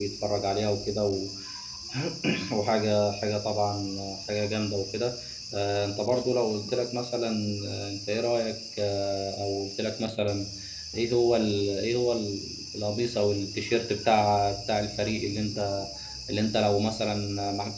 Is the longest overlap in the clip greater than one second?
No

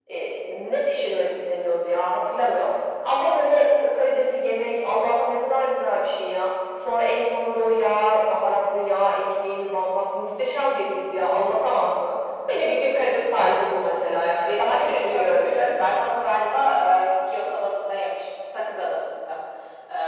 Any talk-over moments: Yes, from 14.4 s

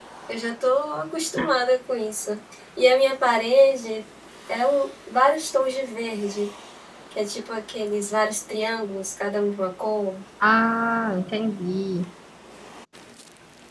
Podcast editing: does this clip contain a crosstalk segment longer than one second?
No

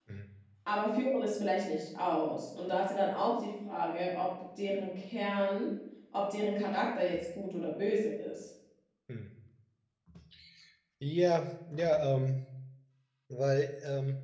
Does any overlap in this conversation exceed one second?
No

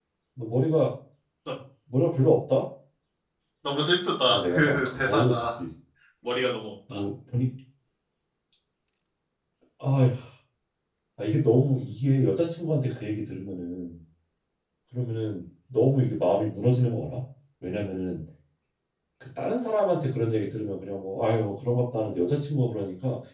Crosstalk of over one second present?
Yes, from 4.3 s

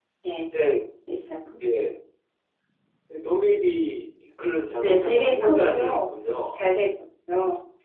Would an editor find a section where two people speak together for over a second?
Yes, from 4.8 s

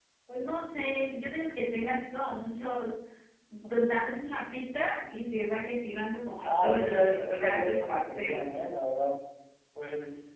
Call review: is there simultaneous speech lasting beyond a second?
Yes, from 6.4 s

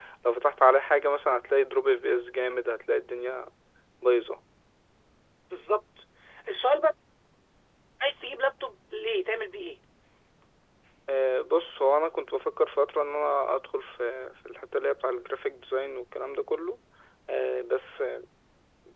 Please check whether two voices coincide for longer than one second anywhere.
No

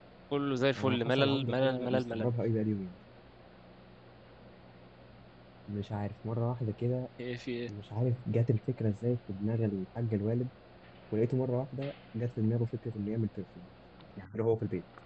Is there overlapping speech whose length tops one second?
Yes, from 0.8 s

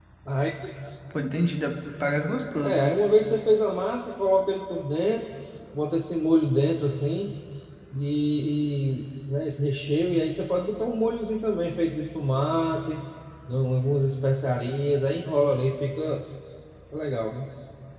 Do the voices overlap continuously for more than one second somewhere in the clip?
No

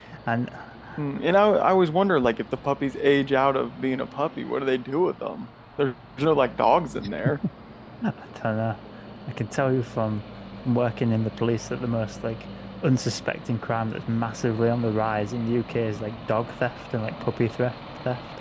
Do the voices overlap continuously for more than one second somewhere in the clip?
No

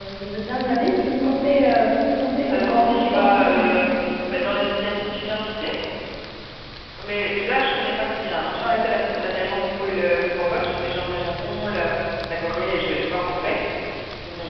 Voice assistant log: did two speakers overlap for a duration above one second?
Yes, from 2.5 s

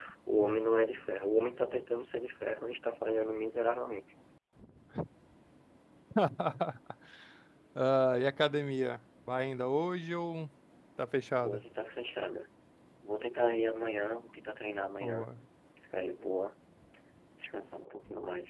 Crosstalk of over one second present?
No

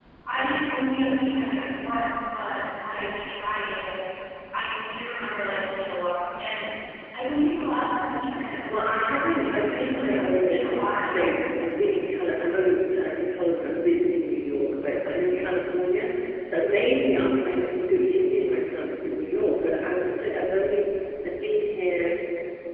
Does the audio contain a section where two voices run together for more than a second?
Yes, from 8.7 s

